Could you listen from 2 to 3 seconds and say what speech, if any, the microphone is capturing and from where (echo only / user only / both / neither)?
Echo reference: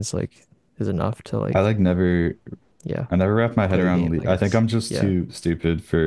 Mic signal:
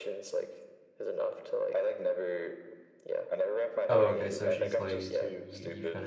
echo only